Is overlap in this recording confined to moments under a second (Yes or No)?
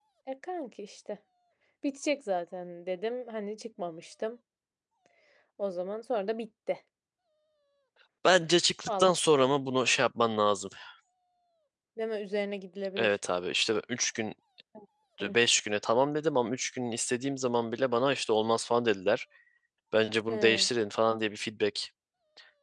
Yes